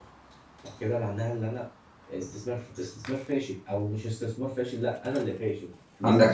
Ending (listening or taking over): taking over